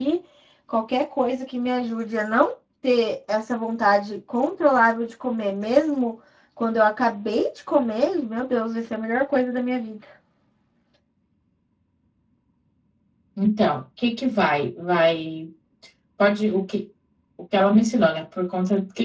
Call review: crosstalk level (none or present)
none